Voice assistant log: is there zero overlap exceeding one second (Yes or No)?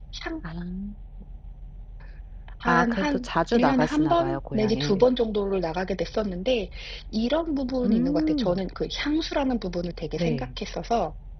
No